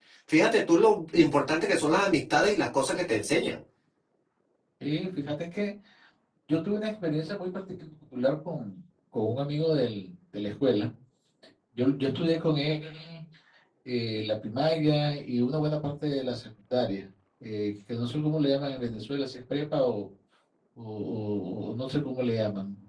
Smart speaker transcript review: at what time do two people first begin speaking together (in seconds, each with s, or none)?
none